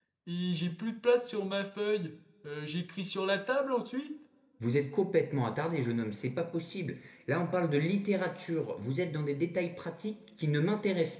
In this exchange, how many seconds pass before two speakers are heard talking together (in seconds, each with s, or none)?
none